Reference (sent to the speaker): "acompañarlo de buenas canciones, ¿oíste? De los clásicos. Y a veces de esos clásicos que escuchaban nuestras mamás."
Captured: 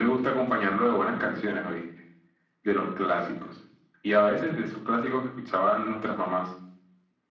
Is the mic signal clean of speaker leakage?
No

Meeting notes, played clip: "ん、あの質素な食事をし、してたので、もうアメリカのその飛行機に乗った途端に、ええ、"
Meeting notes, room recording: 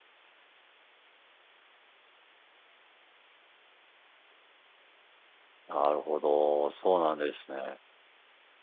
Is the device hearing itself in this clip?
No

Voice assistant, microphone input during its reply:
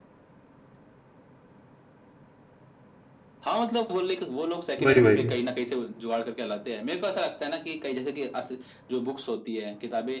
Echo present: Yes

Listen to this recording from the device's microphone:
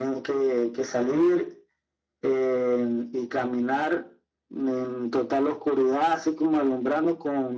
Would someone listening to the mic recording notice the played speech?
Yes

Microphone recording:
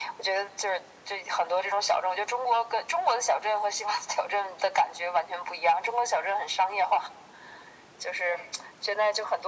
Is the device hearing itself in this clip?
Yes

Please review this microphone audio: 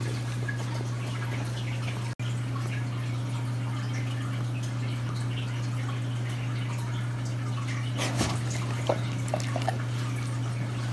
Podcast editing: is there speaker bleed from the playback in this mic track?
No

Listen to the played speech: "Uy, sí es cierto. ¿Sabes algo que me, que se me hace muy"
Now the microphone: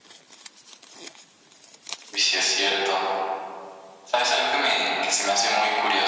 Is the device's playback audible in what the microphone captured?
Yes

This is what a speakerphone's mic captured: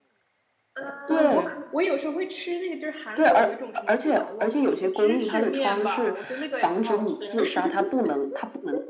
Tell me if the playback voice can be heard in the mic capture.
Yes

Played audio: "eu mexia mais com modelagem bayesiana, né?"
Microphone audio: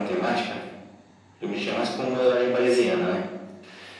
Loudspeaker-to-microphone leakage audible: Yes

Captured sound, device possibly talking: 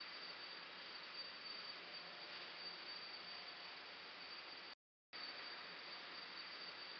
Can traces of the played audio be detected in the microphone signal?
No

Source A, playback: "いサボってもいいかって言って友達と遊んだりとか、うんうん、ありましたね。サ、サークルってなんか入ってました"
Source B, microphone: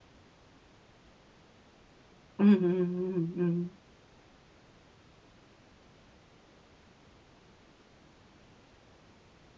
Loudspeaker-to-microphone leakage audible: No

